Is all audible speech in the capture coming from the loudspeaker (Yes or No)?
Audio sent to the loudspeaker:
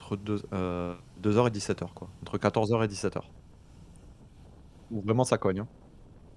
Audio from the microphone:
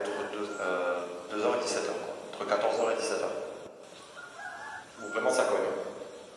Yes